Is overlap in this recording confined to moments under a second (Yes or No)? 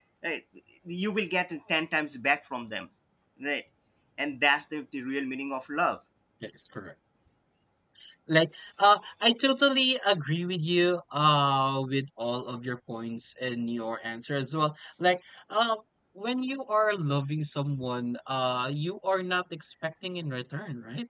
Yes